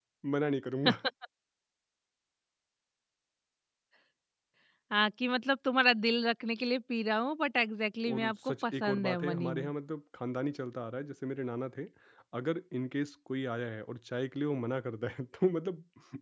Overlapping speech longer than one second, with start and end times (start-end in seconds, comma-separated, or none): 8.1-9.7